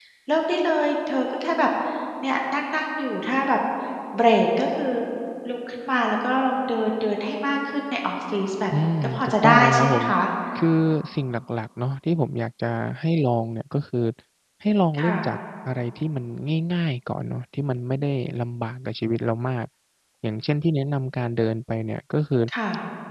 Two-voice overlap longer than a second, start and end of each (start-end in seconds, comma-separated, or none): 8.8-10.0